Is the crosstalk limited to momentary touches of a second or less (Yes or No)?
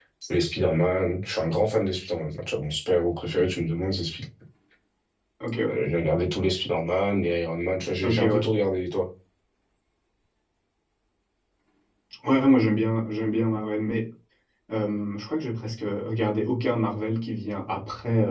Yes